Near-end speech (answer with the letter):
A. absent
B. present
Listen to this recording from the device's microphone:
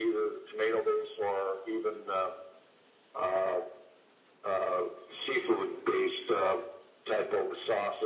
A